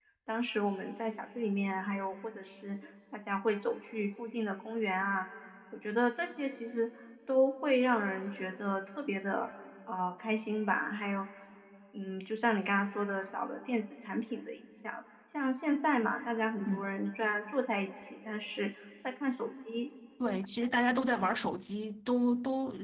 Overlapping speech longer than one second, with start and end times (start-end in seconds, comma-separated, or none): none